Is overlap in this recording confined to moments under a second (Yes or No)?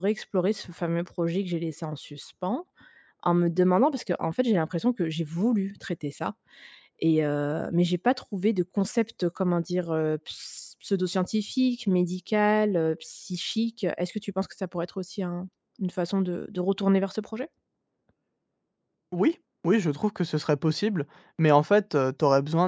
Yes